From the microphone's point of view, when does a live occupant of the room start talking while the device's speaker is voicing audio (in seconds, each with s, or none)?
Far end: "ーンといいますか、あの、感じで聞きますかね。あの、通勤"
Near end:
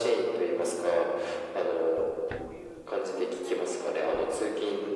1.9 s